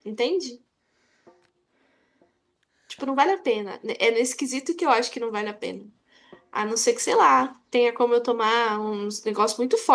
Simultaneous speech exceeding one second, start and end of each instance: none

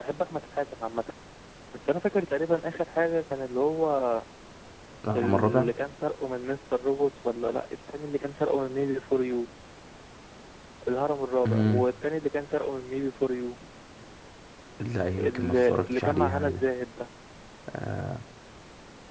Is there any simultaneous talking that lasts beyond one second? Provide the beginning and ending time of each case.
15.2-16.6

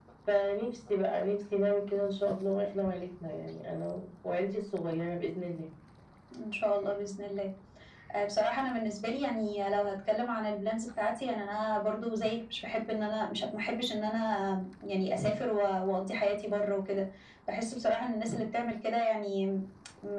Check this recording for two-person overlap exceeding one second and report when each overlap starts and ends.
none

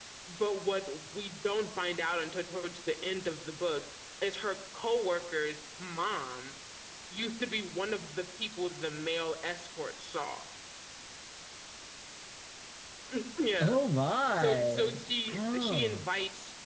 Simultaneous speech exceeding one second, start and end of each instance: 14.4-16.0

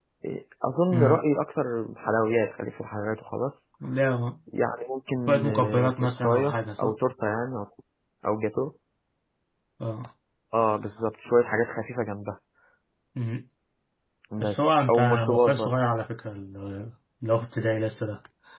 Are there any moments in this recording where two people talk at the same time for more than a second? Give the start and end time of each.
5.3-6.9, 14.4-15.7

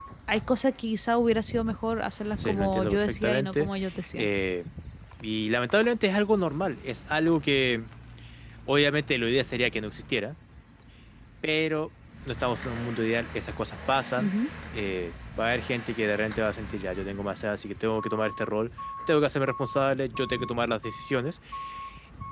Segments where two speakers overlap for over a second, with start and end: 2.4-3.7

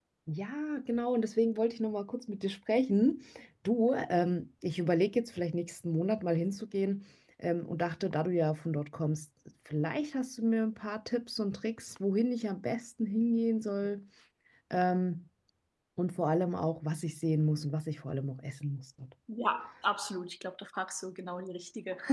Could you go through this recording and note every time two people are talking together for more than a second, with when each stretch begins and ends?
none

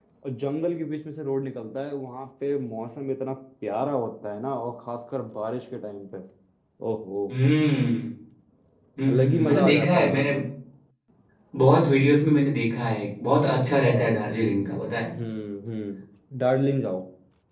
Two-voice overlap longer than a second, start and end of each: 9.1-10.3

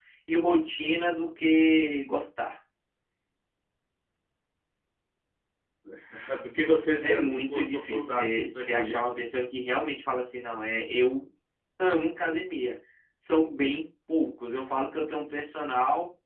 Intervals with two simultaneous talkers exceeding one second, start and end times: 7.0-9.1

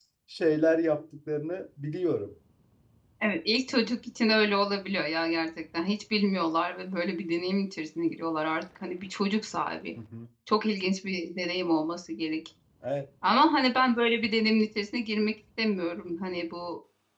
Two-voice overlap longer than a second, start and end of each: none

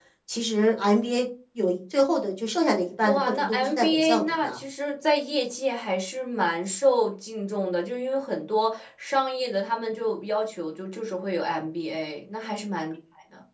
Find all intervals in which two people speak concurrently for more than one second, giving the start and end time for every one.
3.0-4.6

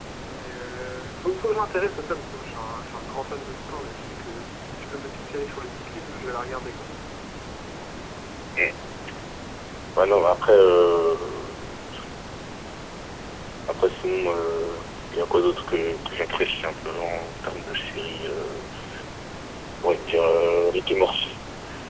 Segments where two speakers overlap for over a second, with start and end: none

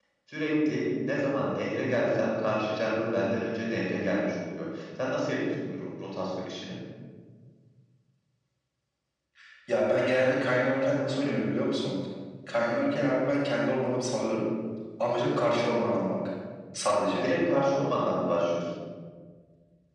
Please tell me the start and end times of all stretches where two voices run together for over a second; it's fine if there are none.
none

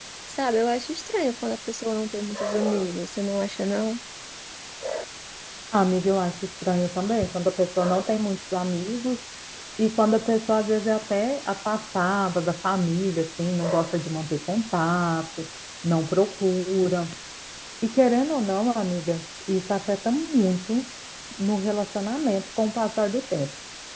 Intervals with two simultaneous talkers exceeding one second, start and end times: none

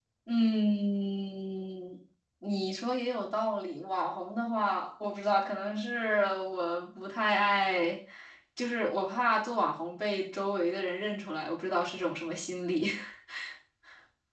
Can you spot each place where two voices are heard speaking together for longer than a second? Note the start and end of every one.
none

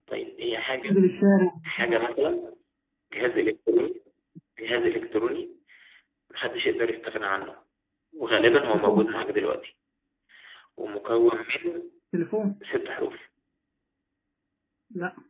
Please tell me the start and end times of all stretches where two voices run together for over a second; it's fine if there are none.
none

